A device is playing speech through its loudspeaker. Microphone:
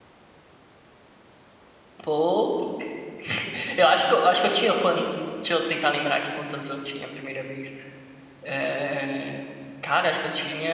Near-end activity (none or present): present